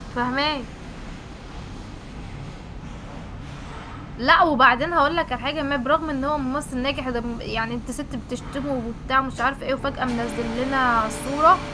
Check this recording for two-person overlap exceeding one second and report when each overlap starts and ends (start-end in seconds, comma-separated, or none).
none